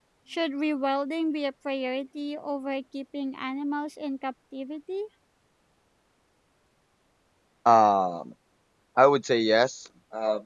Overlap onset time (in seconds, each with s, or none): none